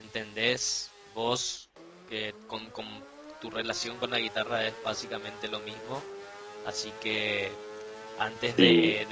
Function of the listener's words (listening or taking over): listening